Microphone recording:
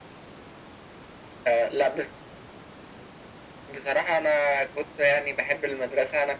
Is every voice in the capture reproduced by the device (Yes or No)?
Yes